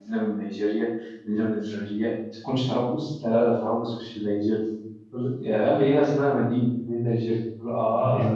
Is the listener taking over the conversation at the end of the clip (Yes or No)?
No